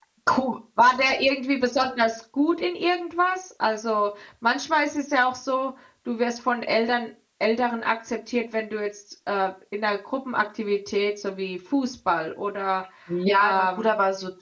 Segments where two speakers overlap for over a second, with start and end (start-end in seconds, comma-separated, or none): none